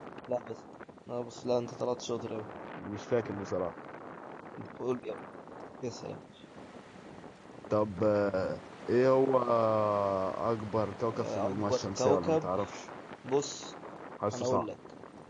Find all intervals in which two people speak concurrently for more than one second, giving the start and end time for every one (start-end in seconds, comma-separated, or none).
11.1-12.5